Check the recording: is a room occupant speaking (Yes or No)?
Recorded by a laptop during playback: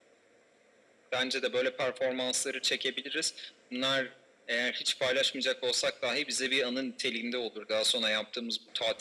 No